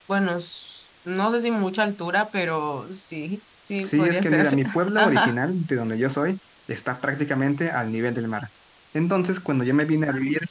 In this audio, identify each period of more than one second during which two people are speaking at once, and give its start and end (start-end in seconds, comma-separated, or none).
3.8-5.4